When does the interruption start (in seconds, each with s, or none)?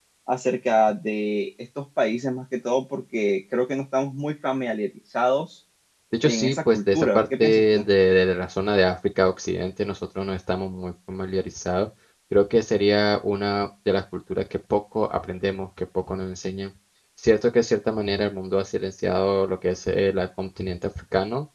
6.2 s